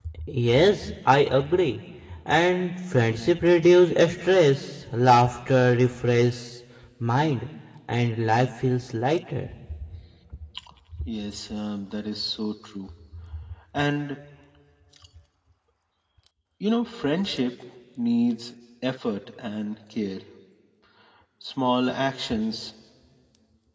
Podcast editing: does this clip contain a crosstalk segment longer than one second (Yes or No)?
No